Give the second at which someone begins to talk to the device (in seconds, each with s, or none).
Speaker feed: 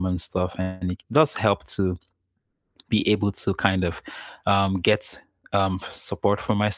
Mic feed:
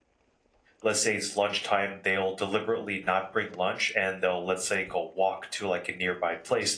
0.8 s